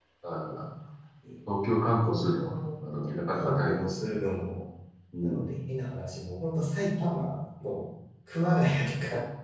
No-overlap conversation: No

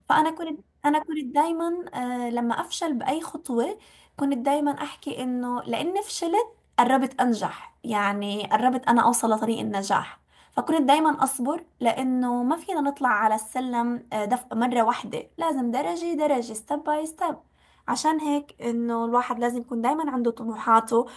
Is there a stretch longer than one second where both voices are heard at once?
No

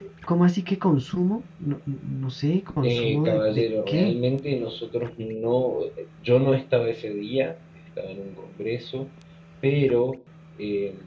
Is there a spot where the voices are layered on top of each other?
Yes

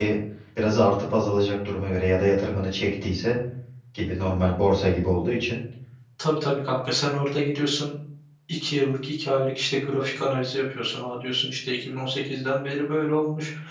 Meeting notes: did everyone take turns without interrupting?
Yes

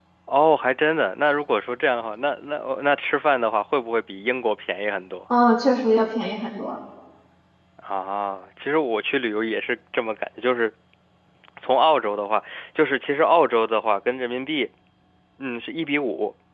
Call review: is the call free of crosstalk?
Yes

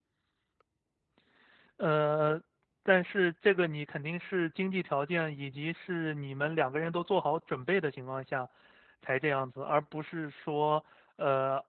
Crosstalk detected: No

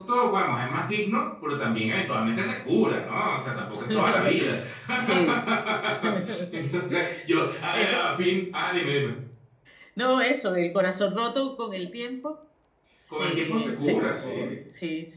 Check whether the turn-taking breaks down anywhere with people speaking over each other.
Yes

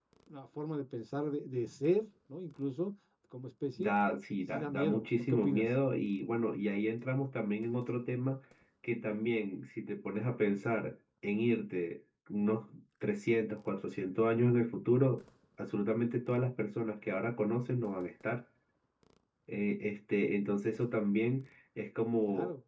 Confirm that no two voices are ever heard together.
No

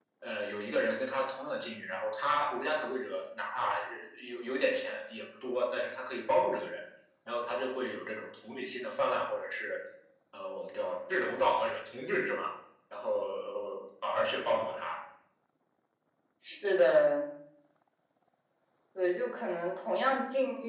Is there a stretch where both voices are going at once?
No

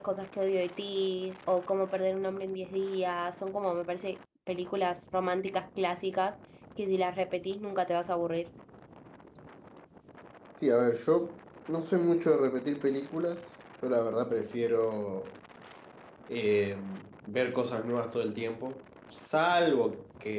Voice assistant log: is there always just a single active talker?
Yes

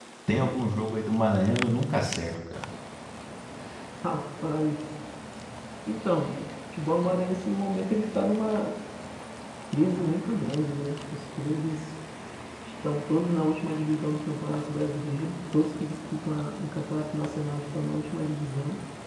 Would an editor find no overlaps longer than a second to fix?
Yes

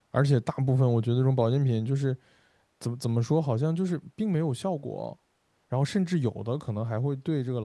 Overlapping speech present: No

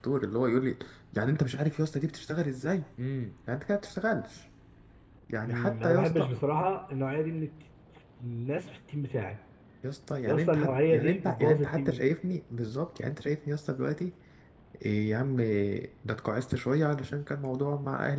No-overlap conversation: No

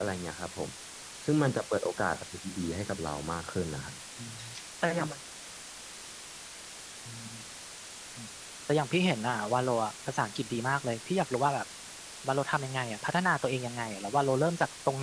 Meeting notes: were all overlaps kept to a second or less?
Yes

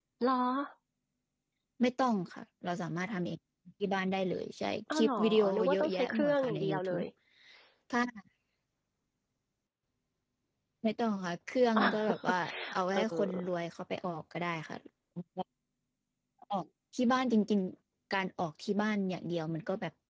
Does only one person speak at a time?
No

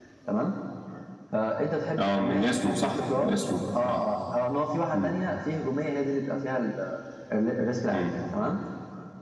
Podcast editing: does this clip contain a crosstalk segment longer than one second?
Yes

